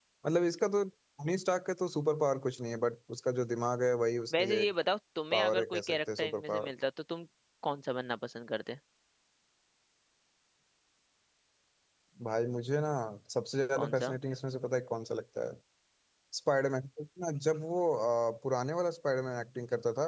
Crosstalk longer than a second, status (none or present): present